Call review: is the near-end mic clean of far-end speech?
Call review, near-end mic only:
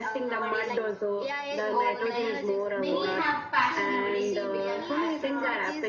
No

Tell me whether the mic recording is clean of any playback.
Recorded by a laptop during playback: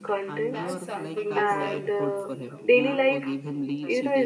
No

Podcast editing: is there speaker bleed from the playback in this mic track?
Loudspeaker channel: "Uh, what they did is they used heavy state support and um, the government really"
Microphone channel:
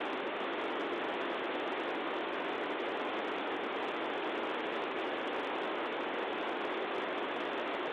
No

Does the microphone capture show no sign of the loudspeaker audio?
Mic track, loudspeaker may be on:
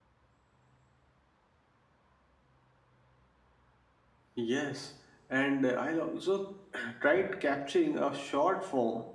Yes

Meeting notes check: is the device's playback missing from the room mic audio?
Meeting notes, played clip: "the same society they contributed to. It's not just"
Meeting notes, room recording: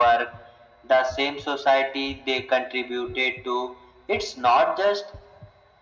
No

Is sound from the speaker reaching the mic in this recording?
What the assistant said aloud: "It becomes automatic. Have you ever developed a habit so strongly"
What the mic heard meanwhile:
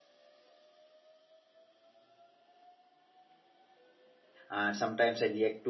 No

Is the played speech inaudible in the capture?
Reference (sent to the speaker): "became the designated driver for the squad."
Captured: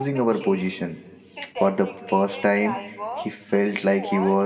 No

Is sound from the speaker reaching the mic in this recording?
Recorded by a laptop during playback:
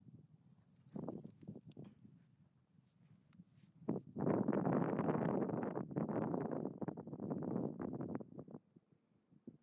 No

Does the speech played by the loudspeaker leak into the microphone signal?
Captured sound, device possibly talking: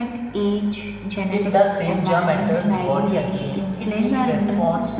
Yes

